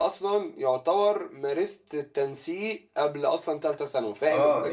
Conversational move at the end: taking over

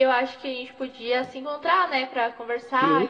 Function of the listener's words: taking over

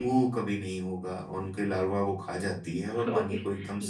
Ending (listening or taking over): taking over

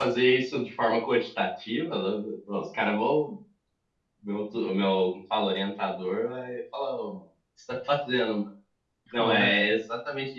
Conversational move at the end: listening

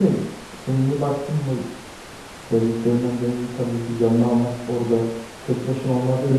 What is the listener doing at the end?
listening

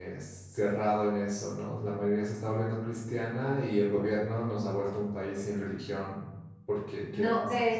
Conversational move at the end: taking over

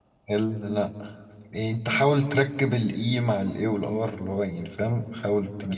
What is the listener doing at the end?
taking over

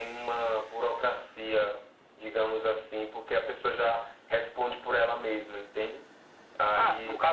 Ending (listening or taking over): taking over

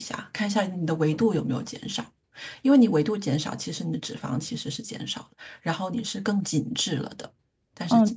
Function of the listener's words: taking over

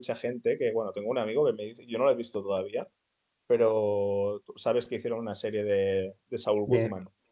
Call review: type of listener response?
taking over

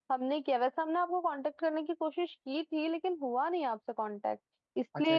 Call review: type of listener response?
taking over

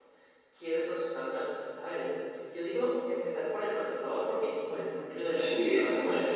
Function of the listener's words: taking over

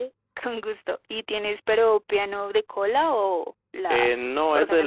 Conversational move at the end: taking over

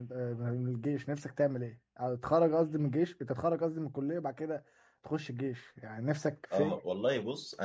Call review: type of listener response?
taking over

